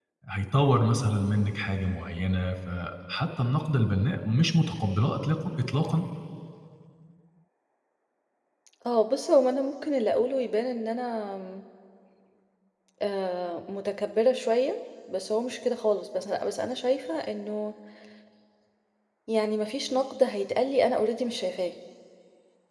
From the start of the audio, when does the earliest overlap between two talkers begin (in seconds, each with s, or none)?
none